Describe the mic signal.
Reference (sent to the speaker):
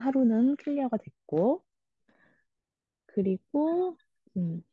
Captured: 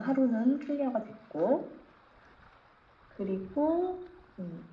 echo only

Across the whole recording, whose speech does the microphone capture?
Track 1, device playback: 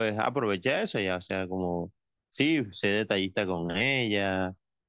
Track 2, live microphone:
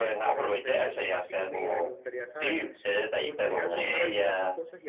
both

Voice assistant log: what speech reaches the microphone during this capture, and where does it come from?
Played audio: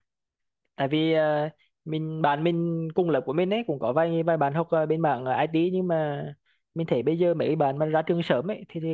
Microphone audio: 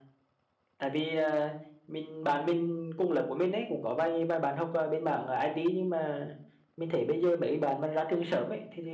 echo only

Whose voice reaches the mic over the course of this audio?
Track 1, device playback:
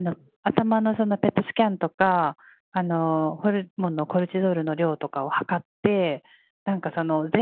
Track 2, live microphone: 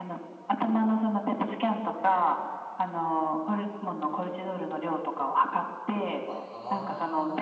both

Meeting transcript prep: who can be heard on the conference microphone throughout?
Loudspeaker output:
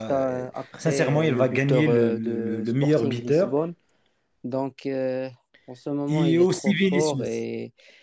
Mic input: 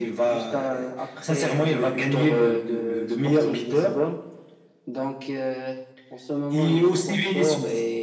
echo only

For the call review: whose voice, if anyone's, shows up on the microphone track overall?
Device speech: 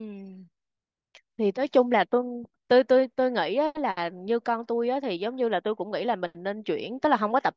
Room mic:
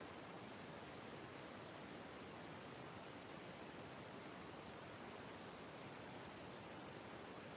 neither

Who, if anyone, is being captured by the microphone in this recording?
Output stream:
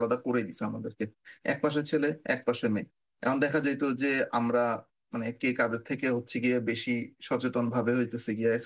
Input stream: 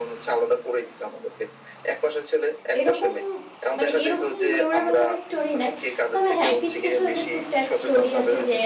both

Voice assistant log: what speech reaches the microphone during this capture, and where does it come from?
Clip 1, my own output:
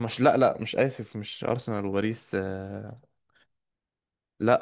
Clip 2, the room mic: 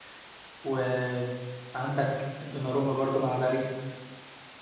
user only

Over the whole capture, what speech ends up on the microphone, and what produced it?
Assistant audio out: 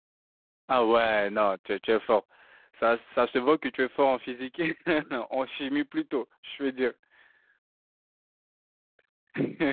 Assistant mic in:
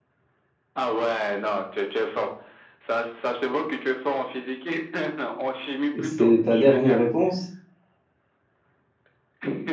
both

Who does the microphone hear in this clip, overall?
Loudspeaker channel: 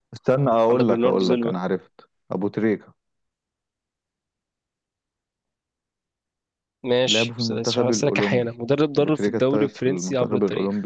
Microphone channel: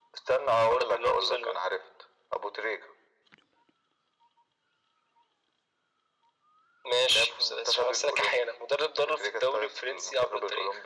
echo only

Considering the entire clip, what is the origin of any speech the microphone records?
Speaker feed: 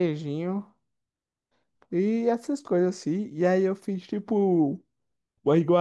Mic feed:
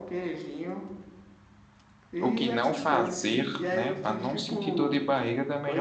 both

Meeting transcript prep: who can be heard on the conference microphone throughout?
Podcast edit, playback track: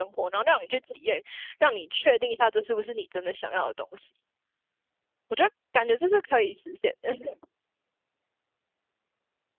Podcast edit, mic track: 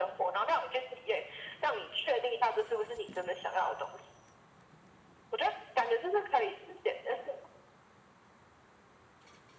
echo only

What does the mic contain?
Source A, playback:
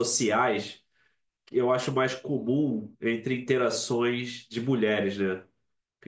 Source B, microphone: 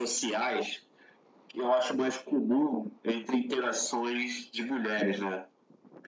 echo only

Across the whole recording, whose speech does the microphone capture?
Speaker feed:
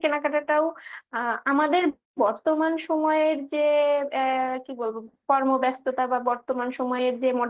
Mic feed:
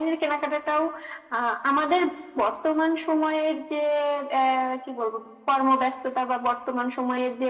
echo only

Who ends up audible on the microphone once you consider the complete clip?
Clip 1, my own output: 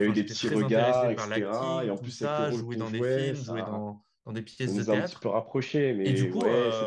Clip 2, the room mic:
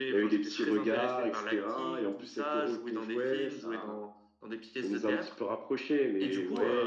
echo only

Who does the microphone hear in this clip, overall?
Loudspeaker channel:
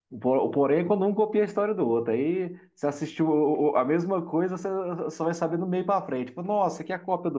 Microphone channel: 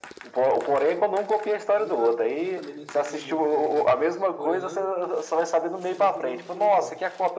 both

